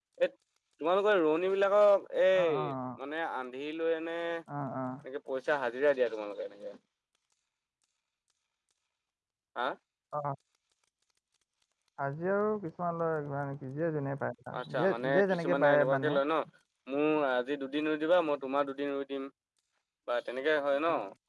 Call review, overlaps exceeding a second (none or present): present